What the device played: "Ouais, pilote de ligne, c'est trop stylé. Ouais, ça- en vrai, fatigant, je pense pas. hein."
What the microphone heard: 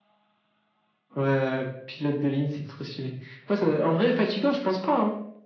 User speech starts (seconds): none

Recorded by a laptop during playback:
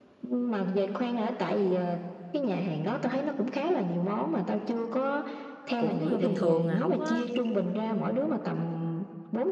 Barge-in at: 5.8 s

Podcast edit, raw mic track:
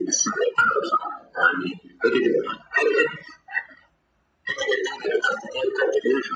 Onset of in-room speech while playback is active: none

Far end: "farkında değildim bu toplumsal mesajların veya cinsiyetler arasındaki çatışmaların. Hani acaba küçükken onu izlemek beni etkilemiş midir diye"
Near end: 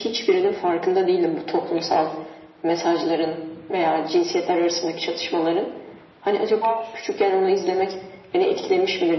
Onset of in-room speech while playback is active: none

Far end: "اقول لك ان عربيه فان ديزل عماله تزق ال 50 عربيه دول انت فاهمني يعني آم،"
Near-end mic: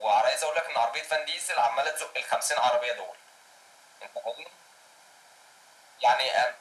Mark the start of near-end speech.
none

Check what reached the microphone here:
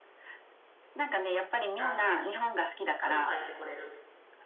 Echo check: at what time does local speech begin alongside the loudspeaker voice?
1.8 s

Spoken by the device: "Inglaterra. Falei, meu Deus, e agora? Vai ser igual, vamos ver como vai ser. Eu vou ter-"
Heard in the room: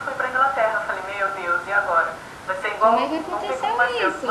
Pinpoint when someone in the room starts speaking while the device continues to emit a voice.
2.8 s

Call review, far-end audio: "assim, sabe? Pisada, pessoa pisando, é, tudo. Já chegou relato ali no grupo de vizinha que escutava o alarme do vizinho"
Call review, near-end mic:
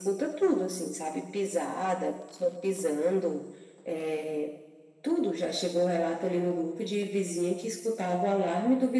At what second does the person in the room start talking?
none

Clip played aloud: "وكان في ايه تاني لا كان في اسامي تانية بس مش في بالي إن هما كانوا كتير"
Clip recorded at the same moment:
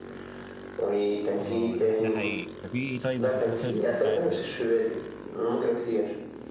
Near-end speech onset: 1.4 s

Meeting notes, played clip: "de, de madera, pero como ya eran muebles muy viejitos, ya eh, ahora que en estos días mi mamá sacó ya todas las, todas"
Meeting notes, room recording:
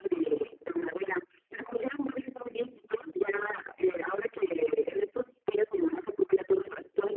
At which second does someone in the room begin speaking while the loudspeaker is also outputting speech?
none

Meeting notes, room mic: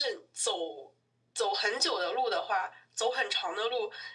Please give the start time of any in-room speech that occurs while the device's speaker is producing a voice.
none

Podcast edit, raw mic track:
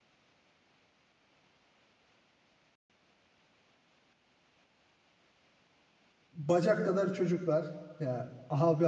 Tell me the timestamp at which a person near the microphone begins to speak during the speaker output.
6.3 s

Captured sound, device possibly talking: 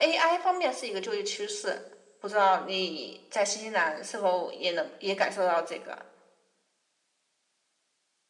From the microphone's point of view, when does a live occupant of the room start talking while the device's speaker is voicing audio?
none

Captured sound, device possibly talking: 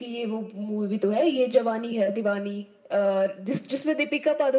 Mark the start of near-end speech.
none

